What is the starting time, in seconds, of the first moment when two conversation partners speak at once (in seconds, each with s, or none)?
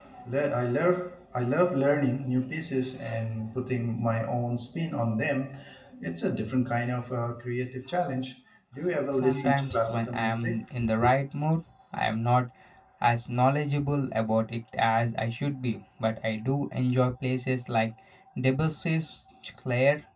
9.2 s